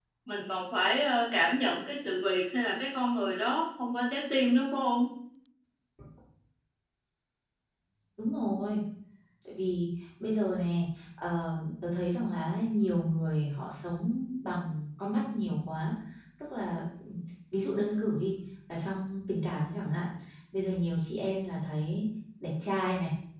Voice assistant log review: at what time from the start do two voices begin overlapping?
none

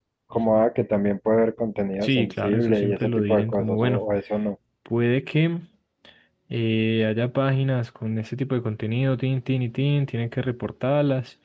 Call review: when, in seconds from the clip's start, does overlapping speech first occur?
2 s

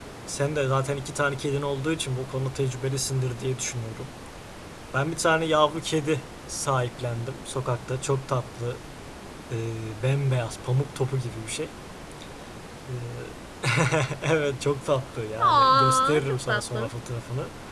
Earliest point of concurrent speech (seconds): 15 s

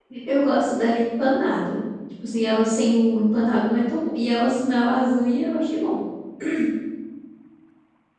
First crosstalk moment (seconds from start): none

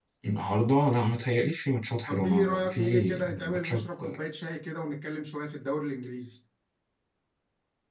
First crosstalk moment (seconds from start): 2 s

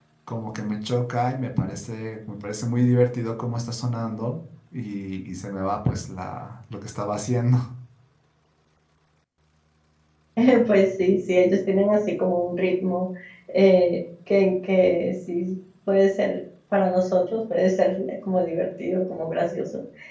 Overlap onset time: none

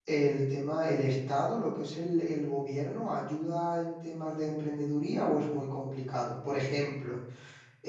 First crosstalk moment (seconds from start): none

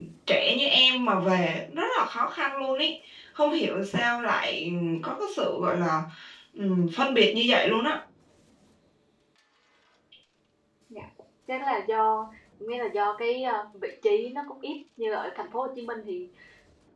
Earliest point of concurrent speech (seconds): none

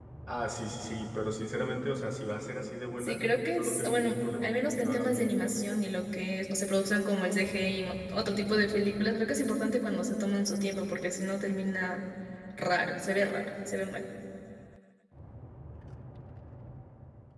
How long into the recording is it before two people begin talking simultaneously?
3 s

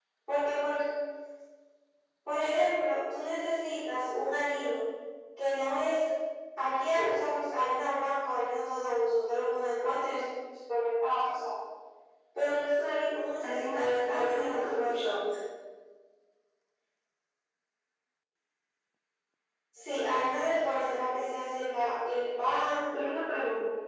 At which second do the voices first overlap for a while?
13 s

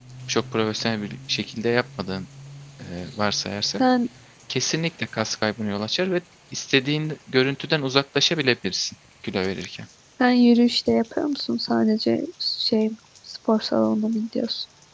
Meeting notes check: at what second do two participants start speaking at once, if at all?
none

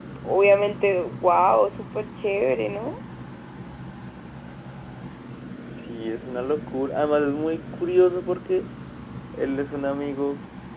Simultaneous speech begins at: none

